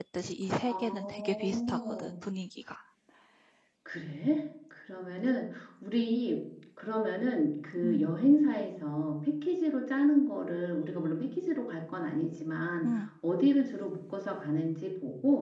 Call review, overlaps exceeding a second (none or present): present